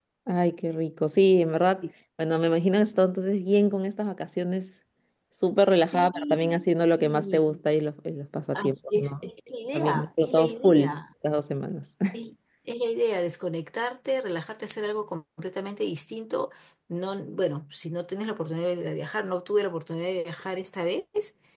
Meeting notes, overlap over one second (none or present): present